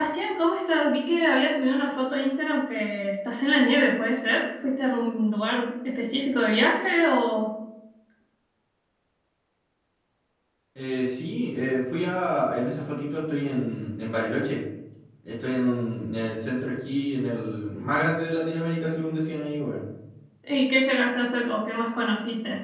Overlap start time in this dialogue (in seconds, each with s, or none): none